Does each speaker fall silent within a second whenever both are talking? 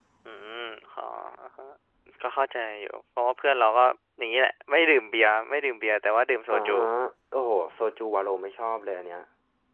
Yes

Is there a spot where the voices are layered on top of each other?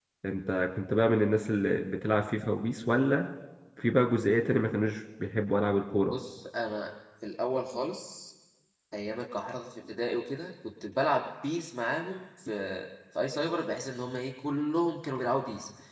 No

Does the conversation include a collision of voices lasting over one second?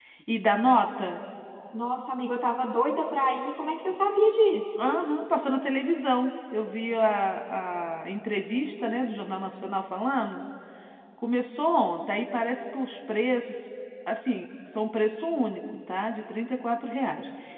No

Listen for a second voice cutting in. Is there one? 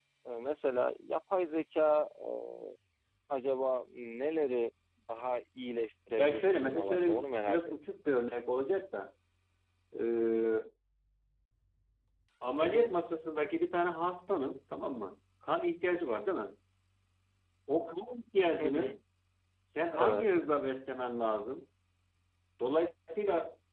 Yes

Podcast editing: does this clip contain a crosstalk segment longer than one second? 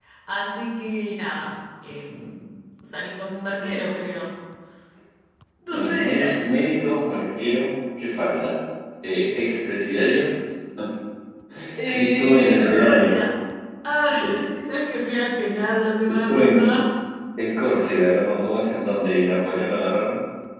Yes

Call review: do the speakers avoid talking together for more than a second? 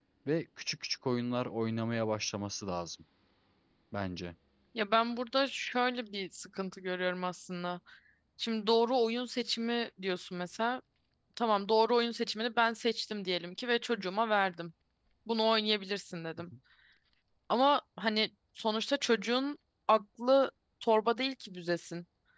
Yes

